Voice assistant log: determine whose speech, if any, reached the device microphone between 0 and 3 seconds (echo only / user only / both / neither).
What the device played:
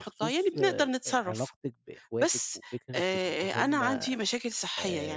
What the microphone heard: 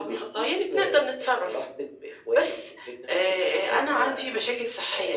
echo only